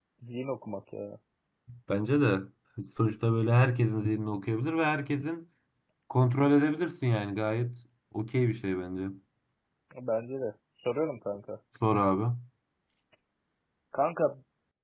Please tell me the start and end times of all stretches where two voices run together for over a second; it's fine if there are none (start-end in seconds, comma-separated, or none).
none